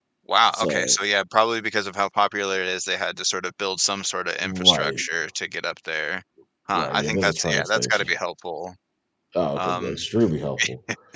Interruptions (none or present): present